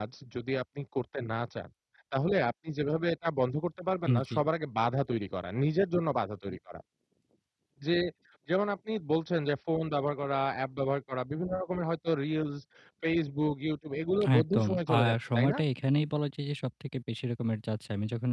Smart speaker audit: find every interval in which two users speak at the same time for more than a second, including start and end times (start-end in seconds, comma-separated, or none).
14.4-15.6